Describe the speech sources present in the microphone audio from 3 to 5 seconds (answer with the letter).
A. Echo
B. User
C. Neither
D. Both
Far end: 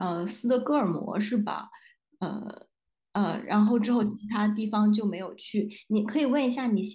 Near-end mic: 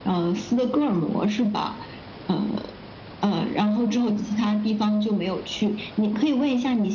A